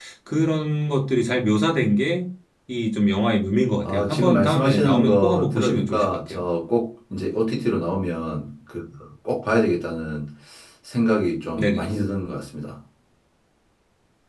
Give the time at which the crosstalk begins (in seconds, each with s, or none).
3.8 s